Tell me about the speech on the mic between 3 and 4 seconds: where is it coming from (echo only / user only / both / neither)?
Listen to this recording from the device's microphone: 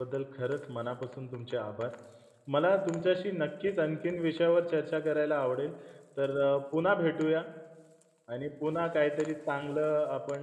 user only